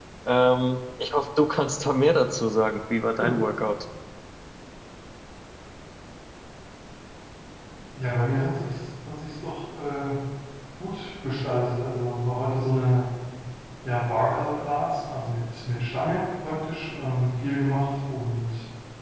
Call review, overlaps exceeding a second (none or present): none